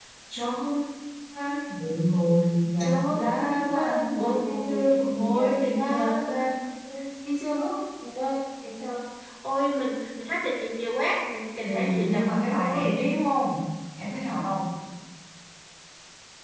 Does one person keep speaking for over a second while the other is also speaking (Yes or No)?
Yes